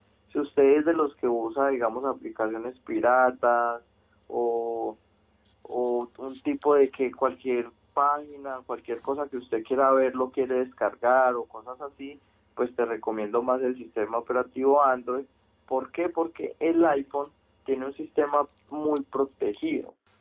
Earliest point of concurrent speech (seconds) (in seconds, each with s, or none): none